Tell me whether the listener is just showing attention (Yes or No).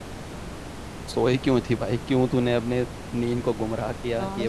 No